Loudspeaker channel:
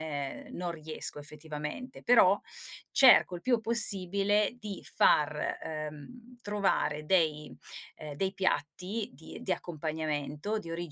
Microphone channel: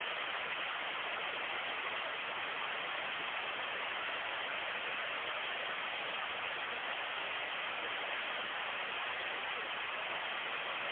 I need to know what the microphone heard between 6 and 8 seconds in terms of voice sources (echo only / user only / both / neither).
neither